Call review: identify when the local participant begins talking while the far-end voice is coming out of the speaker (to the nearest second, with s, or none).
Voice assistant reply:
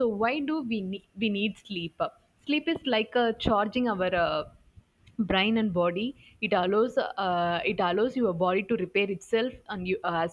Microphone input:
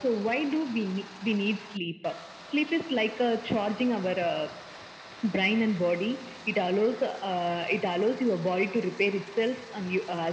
none